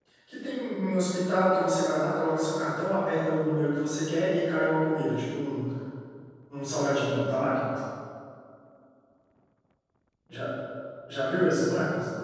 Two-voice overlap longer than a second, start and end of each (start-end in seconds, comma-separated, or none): none